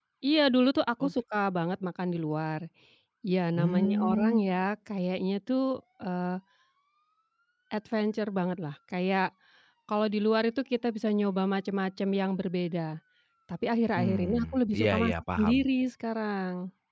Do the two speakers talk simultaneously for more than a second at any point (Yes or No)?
Yes